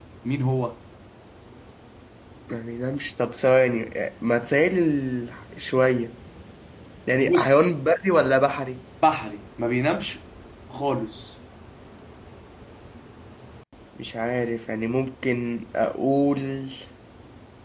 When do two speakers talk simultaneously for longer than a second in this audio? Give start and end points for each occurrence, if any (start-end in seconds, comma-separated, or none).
none